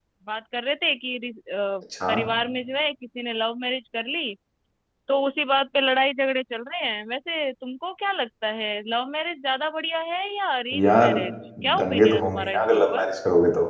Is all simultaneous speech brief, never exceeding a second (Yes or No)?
No